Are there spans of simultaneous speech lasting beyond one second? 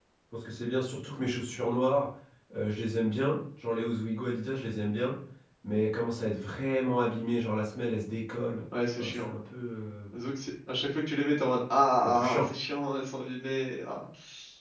No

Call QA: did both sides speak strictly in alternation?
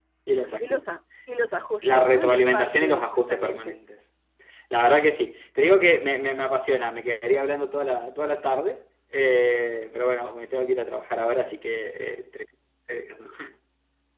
No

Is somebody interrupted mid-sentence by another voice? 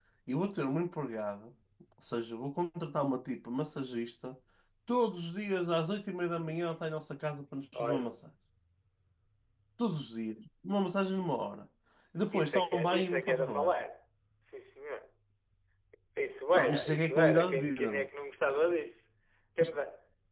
Yes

